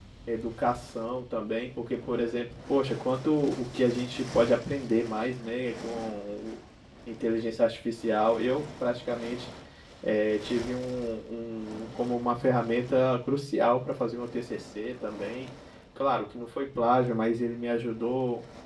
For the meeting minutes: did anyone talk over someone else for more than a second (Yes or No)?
No